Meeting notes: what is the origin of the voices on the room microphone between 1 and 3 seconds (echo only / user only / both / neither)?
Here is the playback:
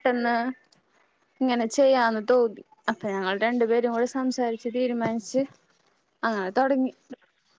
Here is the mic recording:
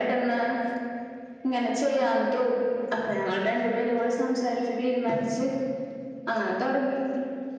echo only